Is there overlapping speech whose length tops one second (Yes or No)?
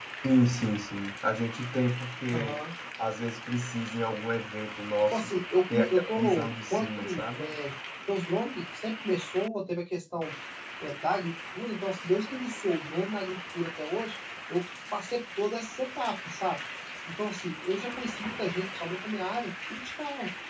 Yes